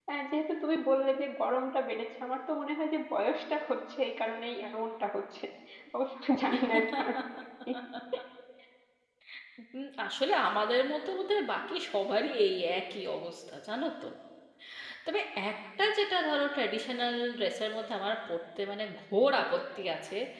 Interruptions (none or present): none